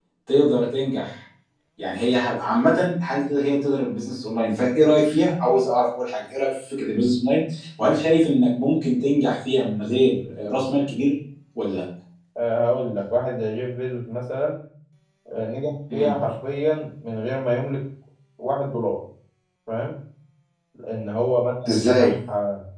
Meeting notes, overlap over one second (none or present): none